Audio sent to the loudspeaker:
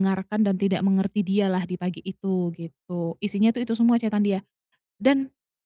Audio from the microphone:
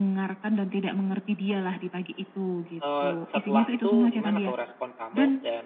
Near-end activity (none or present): present